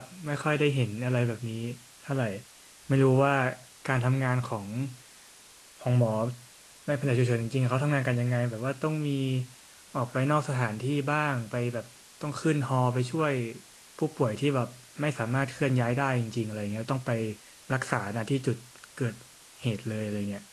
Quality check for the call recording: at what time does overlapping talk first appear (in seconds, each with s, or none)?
none